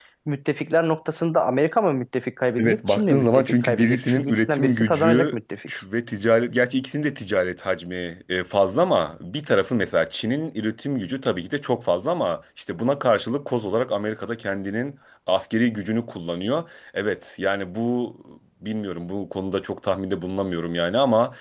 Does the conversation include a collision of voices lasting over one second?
Yes, from 2.6 s

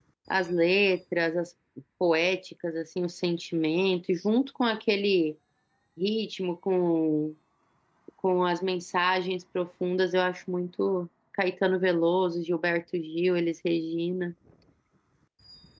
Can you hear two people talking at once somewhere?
No

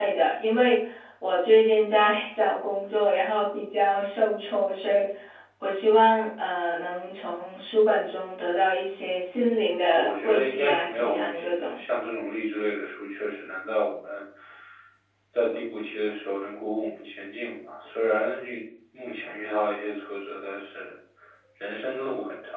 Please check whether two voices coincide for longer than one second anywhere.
Yes, from 9.9 s

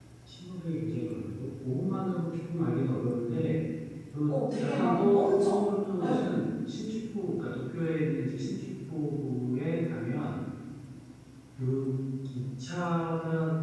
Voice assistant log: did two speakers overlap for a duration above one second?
Yes, from 4.3 s

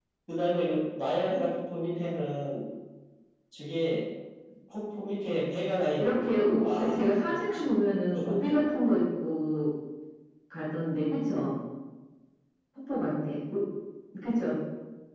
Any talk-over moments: Yes, from 6.0 s

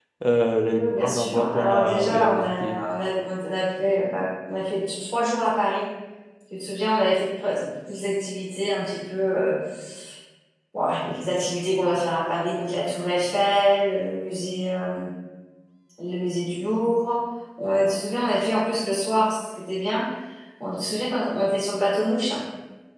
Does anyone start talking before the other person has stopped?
Yes, from 0.7 s

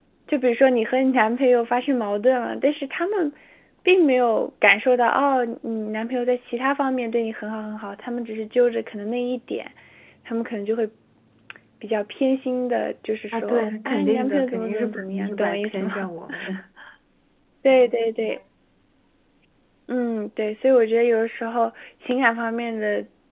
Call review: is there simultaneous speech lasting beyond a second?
Yes, from 13.3 s

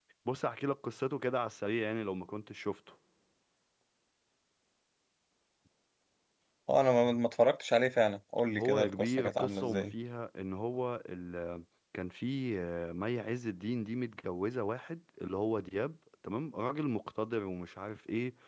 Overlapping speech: Yes, from 8.6 s

